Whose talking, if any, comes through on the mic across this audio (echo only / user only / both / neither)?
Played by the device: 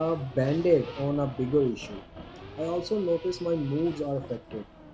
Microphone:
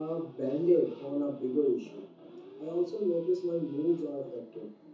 echo only